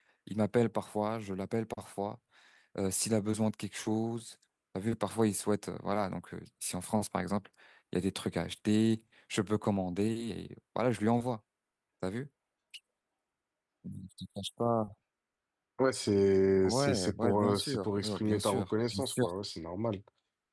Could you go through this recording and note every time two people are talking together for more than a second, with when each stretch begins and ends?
16.6-19.2

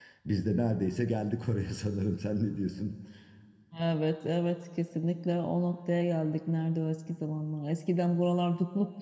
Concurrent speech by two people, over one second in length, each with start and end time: none

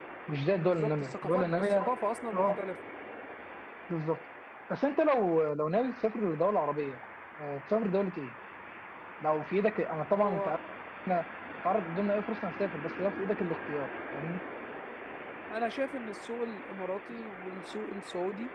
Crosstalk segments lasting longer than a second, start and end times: 0.6-1.9

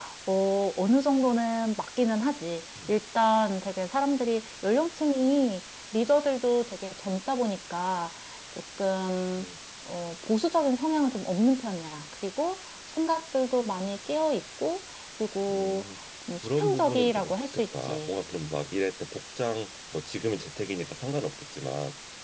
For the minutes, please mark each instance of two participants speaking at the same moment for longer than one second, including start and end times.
16.4-18.1

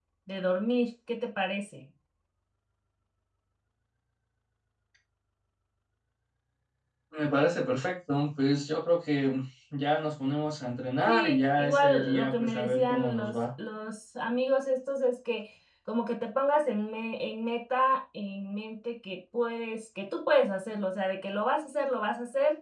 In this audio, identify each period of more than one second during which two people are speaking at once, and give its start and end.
11.1-13.4

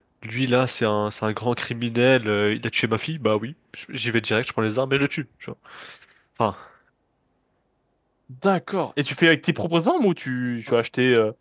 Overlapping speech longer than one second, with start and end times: none

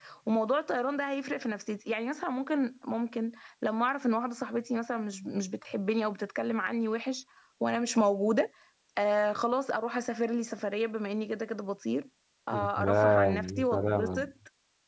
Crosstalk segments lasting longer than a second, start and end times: 12.5-14.3

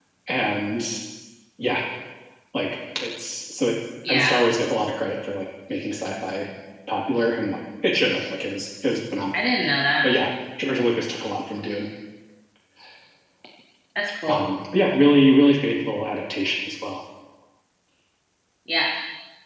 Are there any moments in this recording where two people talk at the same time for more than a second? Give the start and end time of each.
none

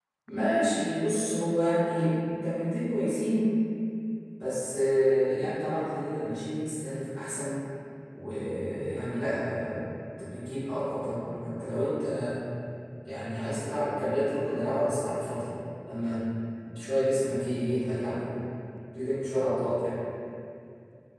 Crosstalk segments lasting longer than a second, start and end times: none

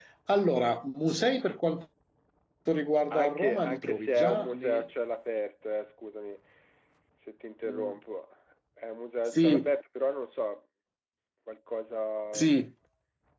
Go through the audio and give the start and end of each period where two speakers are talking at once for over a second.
3.1-4.8

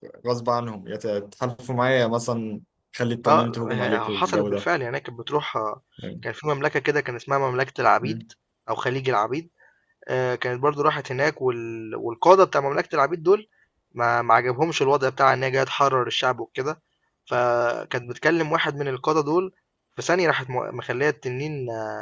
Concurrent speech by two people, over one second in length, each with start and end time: 3.2-4.6

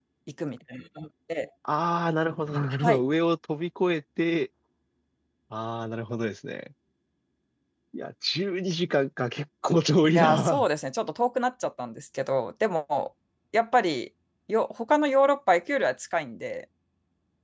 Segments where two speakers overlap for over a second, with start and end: none

